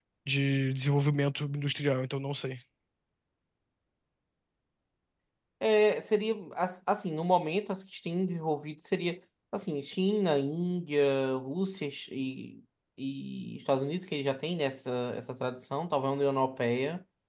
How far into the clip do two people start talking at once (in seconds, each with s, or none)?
none